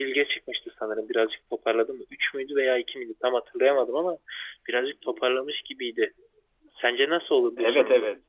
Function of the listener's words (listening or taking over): taking over